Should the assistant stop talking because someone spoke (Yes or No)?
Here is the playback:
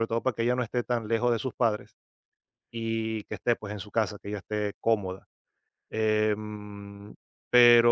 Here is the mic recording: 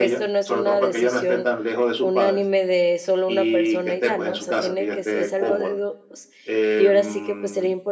Yes